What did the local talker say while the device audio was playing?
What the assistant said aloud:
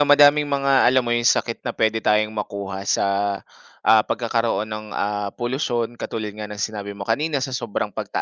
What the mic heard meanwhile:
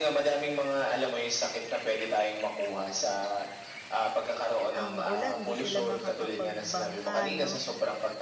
ah, maulan 'di sila makakapagbangka 'no?

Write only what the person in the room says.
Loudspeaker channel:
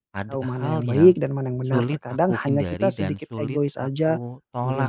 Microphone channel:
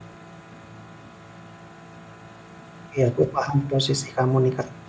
Iya, aku paham posisi kamu nih Kak.

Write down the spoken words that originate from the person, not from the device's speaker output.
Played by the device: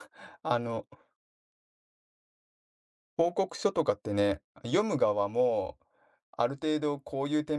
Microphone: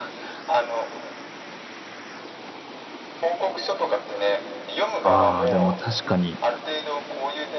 ああ、でも確かに。

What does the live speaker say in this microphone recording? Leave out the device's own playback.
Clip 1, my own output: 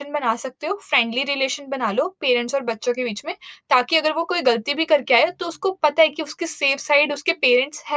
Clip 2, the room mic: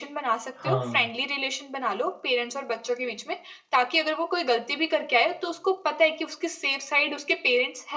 हाँ,

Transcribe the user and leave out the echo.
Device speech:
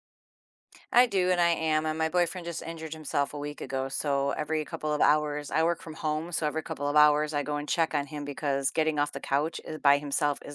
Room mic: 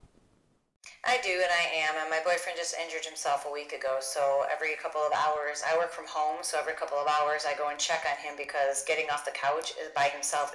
none

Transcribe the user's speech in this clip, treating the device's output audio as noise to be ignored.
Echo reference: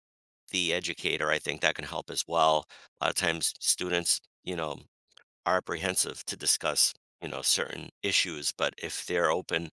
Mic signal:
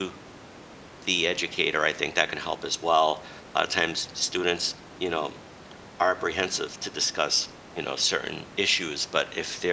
none

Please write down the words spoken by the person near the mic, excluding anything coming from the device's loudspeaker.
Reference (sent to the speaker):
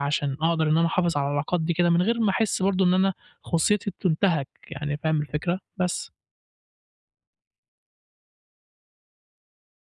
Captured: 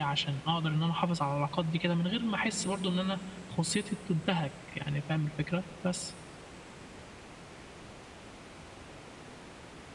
none

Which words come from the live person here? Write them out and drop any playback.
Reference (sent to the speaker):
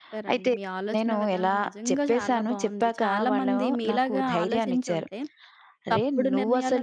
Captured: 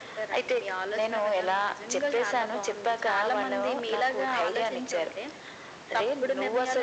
none

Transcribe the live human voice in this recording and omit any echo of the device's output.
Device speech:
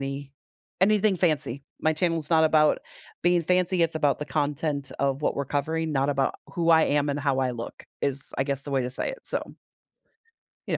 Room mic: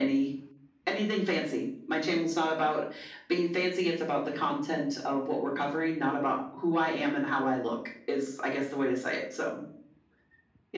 none

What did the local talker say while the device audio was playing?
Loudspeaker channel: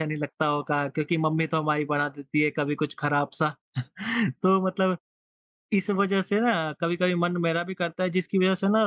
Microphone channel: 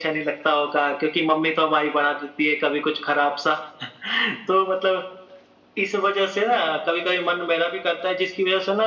none

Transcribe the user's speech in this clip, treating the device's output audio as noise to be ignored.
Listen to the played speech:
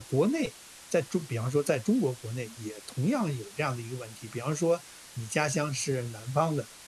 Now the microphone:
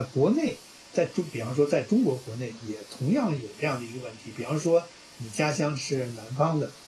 none

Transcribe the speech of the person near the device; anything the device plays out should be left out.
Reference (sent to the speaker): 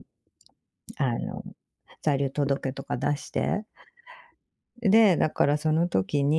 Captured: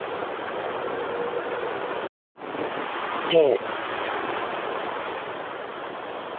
ええ、

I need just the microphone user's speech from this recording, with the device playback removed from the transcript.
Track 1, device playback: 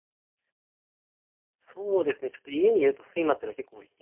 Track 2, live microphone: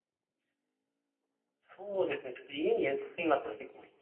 none

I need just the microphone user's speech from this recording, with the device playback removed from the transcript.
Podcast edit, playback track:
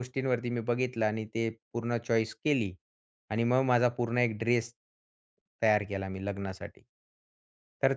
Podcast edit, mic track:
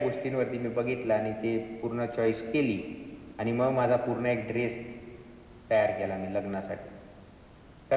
none

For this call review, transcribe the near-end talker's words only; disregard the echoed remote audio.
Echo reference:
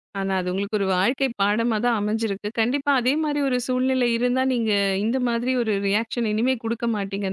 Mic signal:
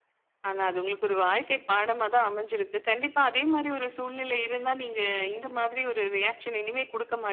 none

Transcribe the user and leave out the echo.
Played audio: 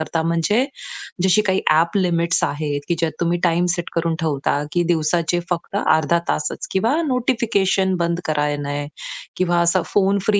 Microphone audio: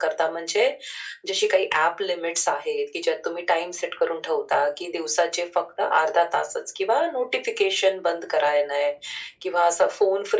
none

